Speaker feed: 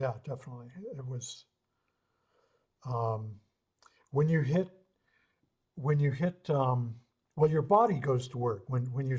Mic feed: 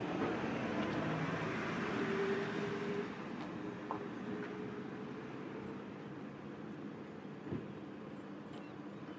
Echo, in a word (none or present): none